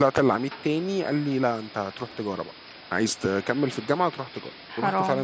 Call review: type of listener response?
listening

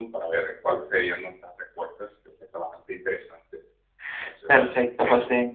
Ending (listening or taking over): taking over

